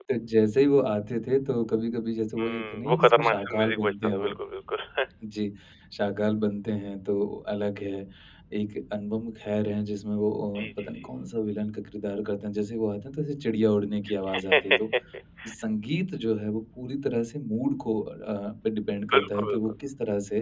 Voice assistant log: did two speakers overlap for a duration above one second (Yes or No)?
Yes